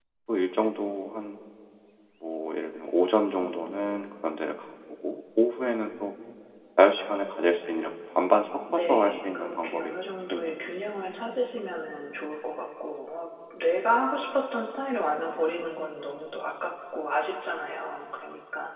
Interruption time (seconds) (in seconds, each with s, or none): 8.7 s